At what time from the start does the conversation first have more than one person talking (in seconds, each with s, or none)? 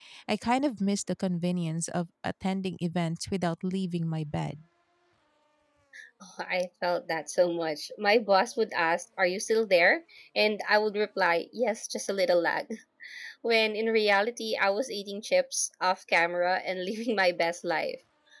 none